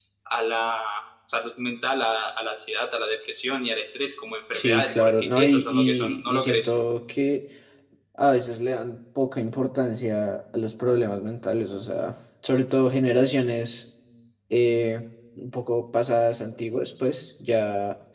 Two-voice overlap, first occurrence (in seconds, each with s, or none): 4.5 s